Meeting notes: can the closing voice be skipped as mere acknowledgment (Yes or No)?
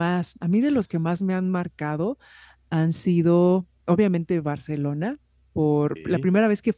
Yes